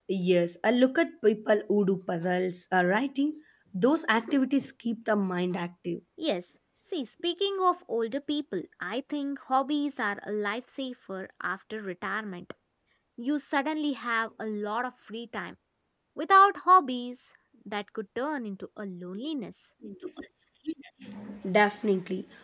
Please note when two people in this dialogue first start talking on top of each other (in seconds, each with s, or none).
none